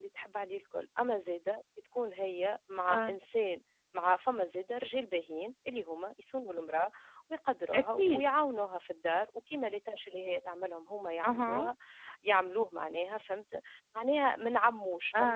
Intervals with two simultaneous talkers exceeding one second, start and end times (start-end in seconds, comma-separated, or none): none